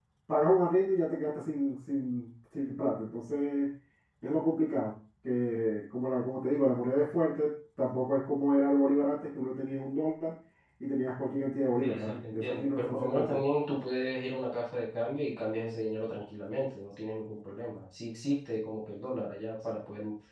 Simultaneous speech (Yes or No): Yes